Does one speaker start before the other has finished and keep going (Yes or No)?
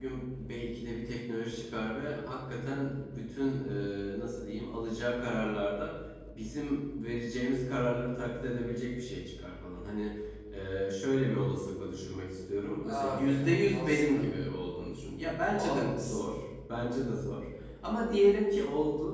Yes